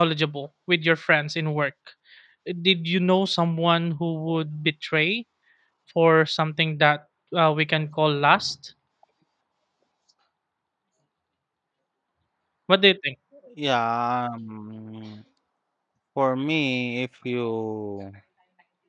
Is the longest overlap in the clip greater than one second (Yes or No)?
No